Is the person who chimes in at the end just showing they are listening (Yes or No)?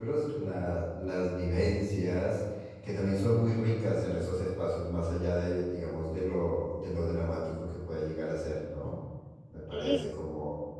Yes